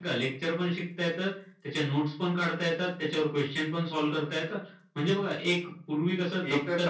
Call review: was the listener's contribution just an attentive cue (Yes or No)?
No